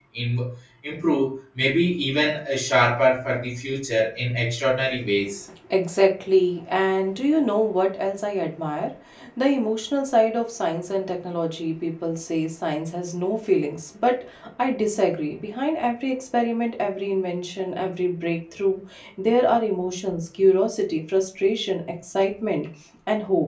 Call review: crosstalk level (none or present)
none